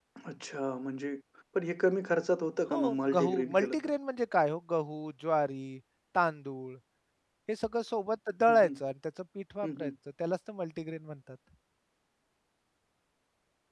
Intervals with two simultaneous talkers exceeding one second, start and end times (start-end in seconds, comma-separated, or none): 2.7-3.9